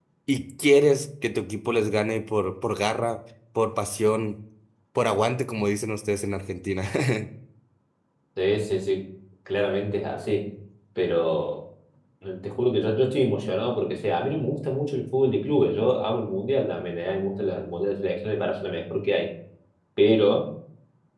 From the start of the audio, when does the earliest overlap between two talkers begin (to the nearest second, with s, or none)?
none